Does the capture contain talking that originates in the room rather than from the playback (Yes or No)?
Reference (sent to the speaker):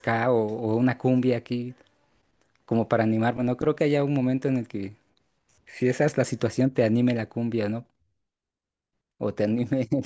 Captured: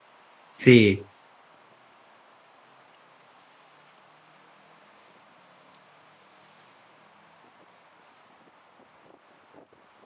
Yes